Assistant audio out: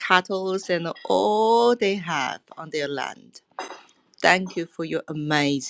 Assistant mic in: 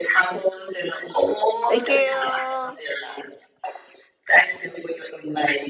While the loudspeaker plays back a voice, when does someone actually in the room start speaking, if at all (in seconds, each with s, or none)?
1.6 s